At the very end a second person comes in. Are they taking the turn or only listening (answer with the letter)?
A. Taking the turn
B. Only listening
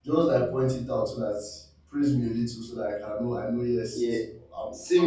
A